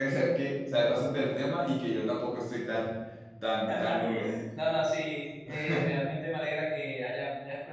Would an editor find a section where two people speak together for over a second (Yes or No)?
No